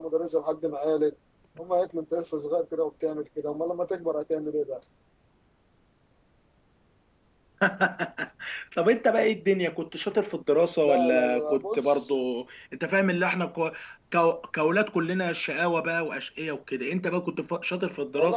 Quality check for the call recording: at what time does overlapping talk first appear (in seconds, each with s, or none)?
10.8 s